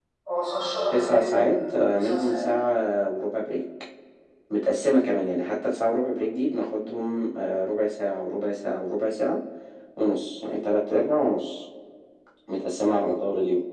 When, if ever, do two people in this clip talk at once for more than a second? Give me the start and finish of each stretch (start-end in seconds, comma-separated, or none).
0.9-2.5